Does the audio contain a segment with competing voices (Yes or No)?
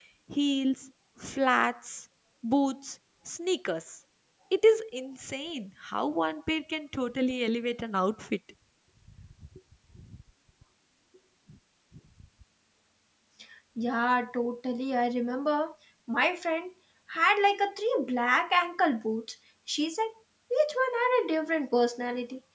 No